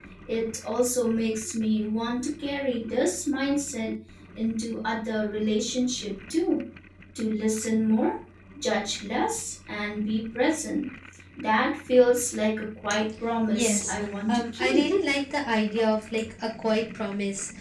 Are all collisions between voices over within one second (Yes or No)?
No